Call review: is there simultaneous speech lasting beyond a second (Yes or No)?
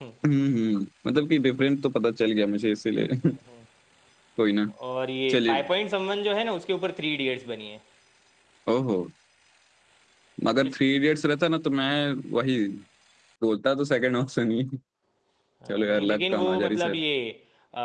Yes